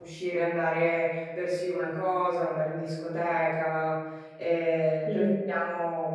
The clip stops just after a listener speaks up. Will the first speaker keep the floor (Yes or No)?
Yes